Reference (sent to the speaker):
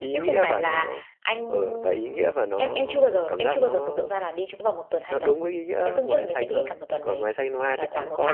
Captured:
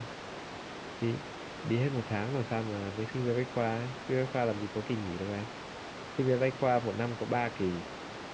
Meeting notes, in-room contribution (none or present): present